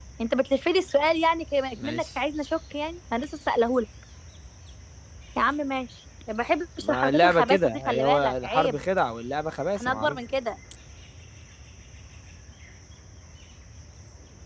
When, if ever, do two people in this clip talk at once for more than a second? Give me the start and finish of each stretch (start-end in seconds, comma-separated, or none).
6.8-8.8